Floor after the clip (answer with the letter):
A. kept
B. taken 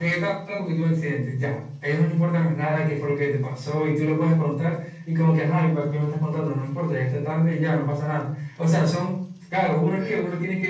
A